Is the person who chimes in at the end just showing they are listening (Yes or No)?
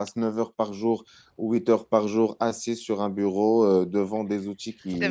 Yes